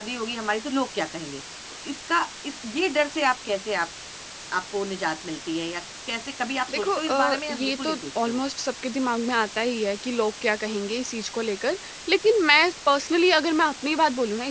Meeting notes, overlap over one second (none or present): present